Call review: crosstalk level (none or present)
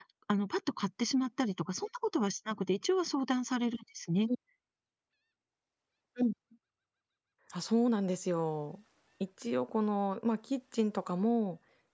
none